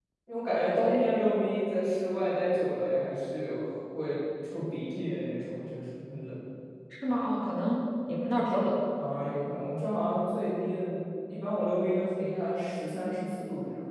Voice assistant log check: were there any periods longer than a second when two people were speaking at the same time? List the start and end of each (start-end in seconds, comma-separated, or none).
none